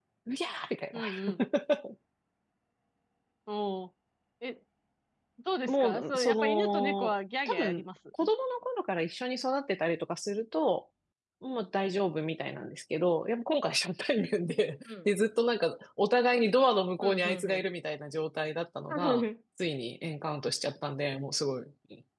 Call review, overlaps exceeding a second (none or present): present